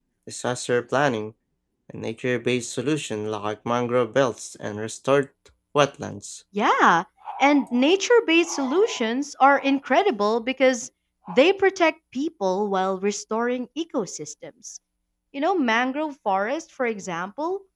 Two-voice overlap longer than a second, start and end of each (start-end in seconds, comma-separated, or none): none